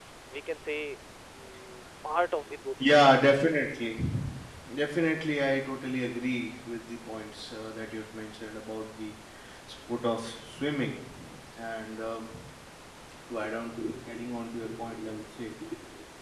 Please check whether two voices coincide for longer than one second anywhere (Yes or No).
No